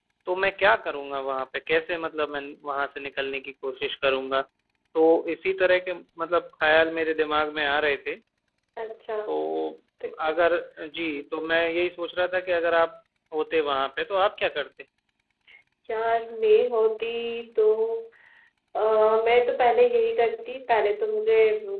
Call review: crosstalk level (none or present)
none